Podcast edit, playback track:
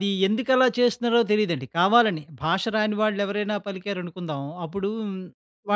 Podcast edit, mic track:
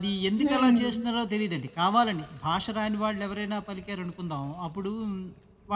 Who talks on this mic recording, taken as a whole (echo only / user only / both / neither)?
both